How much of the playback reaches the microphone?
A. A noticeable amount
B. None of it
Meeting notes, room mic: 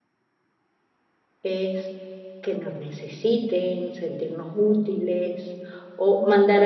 B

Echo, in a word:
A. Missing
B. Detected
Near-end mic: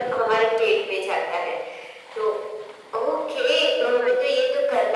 B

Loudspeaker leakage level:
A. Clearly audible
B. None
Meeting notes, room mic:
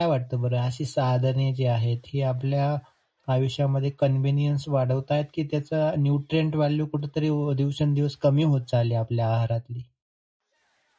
B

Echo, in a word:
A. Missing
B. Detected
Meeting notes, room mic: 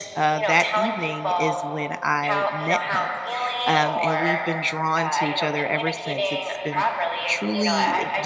B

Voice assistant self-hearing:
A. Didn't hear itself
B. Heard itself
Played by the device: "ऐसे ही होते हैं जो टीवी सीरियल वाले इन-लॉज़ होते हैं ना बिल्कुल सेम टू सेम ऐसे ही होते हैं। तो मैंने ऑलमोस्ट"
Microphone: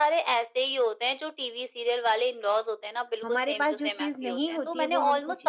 B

